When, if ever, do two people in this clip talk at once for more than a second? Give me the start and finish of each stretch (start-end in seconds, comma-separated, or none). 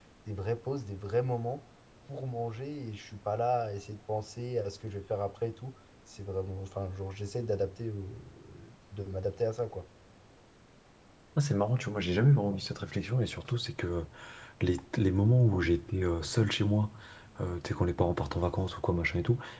none